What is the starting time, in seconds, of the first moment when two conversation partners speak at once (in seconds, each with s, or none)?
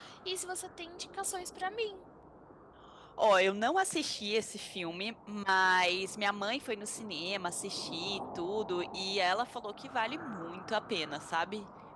none